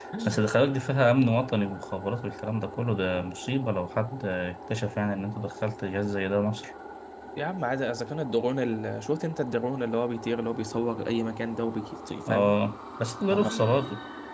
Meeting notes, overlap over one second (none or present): none